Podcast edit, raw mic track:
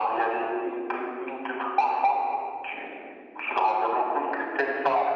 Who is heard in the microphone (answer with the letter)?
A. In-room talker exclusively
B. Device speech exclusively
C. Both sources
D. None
B